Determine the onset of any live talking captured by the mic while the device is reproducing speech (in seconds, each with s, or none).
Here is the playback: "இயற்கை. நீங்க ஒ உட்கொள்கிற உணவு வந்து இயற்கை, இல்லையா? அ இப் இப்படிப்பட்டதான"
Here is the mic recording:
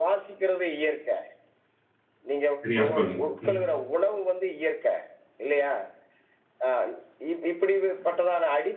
2.6 s